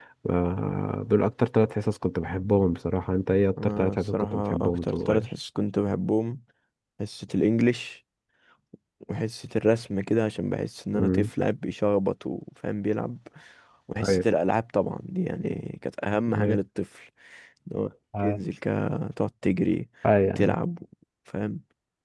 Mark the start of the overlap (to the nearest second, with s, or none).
4 s